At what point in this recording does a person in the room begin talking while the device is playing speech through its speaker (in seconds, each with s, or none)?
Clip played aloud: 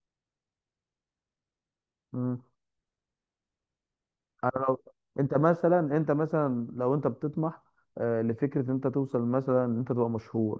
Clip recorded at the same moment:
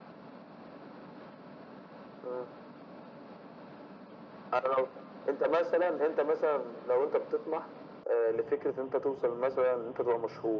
none